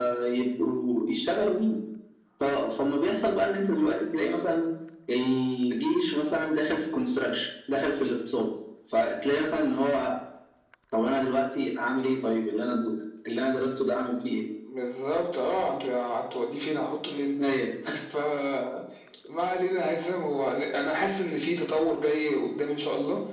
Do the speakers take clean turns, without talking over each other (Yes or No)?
Yes